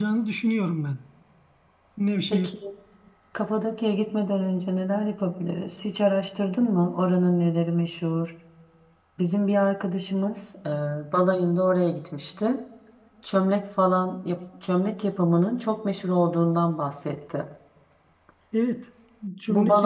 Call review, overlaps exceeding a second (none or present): none